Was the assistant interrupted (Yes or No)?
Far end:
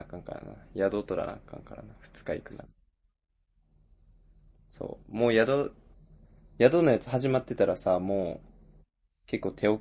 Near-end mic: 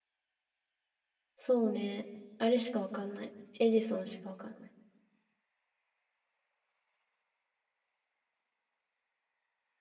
Yes